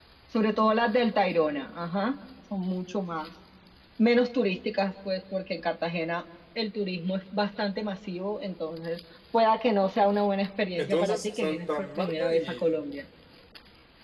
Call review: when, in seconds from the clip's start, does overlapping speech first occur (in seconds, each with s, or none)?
10.8 s